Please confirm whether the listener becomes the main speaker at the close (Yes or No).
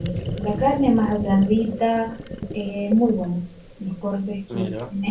No